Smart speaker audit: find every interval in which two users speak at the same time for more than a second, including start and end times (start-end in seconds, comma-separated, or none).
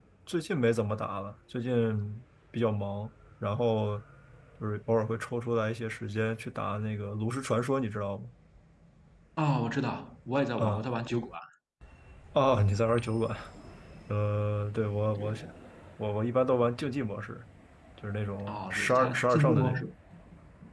18.5-19.8